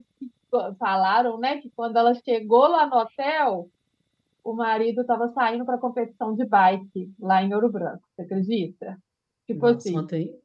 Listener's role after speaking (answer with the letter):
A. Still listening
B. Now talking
B